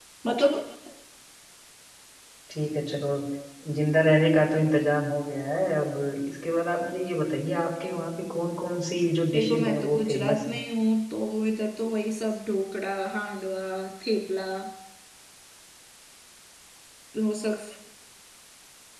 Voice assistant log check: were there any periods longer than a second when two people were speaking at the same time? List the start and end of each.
9.3-10.6

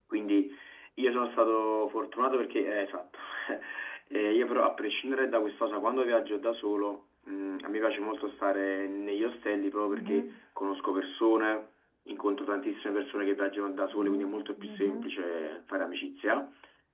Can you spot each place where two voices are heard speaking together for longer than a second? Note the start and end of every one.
13.9-15.1

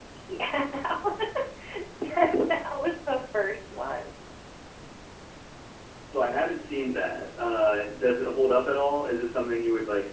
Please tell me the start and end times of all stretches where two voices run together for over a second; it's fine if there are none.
none

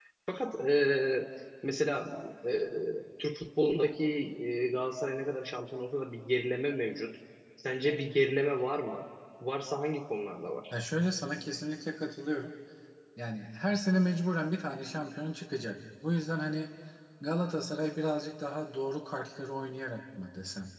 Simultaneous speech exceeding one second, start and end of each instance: none

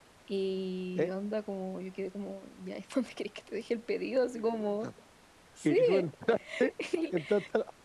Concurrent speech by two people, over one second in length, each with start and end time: none

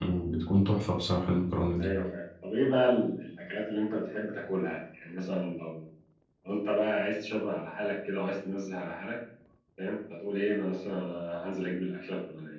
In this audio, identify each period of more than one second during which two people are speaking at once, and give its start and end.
none

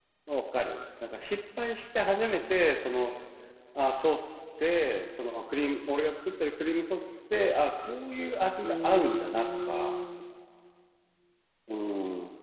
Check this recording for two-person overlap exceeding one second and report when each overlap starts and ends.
8.6-9.9

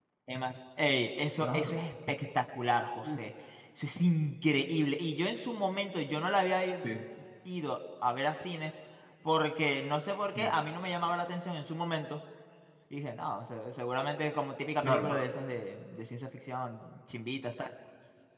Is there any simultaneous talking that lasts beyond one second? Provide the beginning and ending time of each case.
none

